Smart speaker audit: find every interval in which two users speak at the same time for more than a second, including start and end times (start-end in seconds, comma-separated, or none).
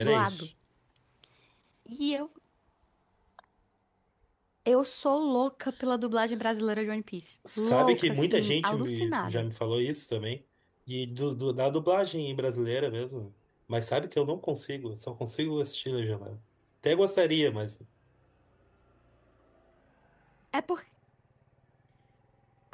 7.6-9.4